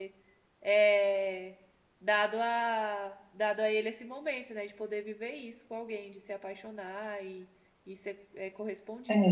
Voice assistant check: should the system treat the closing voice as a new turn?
Yes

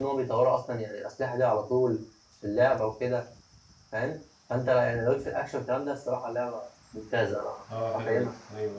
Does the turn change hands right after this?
Yes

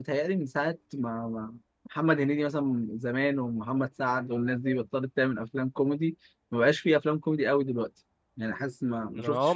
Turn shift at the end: Yes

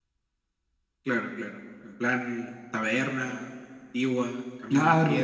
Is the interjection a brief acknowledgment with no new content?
No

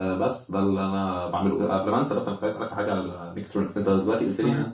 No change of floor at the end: Yes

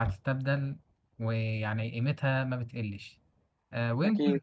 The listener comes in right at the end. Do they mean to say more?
No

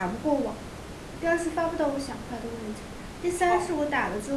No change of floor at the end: Yes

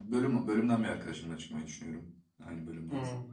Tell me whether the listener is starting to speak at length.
Yes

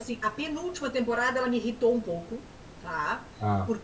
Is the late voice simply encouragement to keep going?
Yes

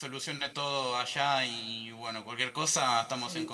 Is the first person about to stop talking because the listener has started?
Yes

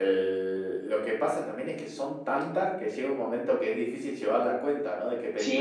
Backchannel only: No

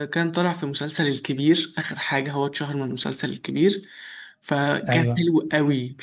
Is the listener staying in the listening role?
Yes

